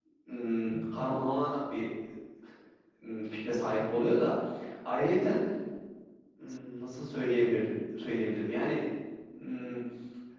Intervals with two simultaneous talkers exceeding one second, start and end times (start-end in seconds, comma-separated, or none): none